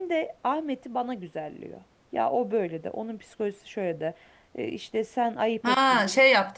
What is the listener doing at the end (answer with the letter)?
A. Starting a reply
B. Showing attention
A